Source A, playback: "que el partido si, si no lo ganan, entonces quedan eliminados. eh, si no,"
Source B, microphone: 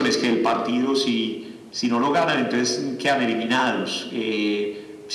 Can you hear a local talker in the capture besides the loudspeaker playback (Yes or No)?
No